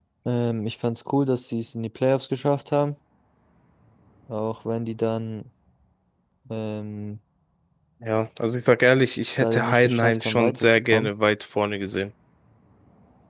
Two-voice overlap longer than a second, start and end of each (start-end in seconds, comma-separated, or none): 9.2-11.1